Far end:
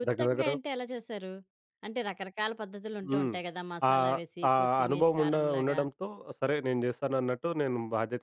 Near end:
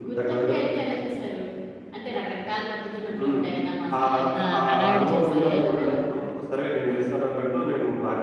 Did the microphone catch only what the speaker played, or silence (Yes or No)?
No